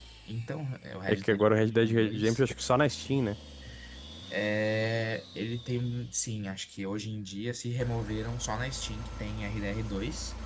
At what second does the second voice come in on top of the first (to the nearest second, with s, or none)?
1 s